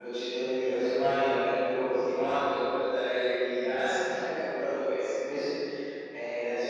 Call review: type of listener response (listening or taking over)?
listening